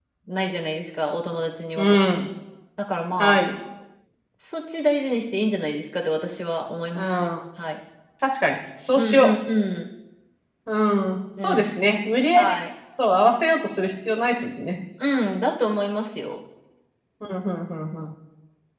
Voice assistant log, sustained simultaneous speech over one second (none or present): none